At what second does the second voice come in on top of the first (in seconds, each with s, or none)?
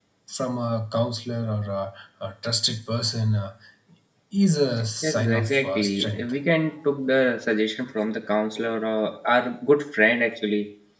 5.0 s